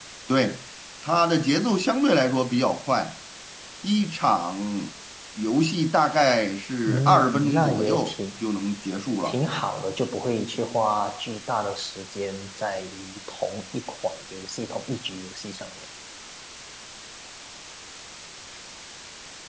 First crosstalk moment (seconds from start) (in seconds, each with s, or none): 6.9 s